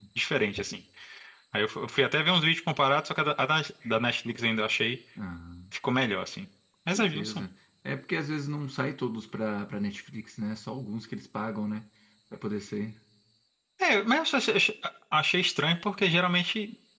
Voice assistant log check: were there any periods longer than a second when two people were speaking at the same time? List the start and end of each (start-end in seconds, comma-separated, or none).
none